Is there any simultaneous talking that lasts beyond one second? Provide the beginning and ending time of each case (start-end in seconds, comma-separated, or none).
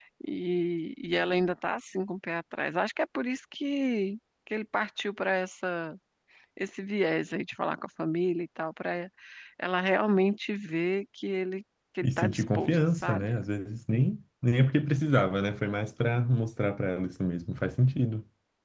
12.0-13.3